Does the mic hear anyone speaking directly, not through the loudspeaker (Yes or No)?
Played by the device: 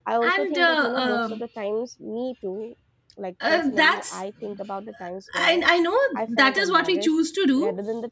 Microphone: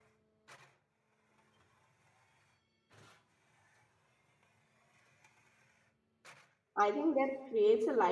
Yes